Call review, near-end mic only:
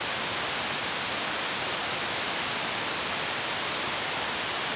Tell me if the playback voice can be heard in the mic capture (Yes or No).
No